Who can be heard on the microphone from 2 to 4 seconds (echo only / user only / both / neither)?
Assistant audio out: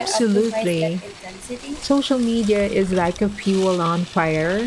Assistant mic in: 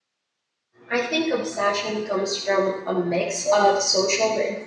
user only